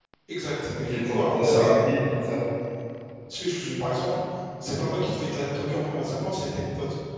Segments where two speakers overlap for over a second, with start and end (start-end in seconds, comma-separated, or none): 0.8-2.5